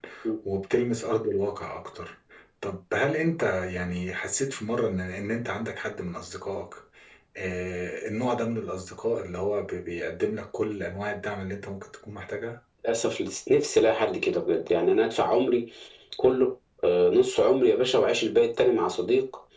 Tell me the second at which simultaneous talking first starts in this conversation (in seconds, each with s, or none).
none